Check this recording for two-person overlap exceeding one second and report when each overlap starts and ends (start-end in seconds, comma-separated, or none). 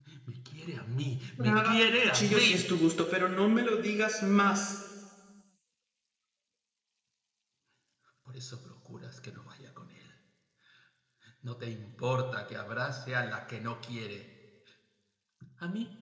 1.4-2.7